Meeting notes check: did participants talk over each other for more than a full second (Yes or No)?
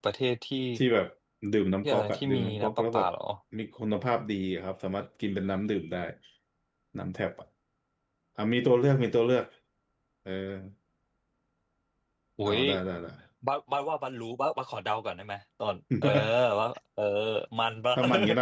Yes